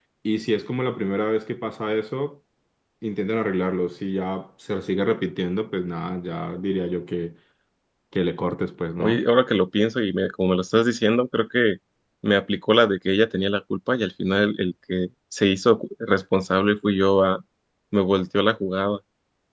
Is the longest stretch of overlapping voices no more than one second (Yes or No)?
Yes